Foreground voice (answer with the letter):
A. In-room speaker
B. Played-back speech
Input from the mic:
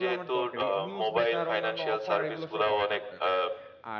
B